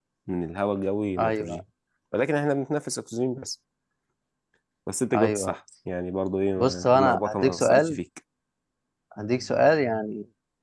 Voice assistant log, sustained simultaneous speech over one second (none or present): present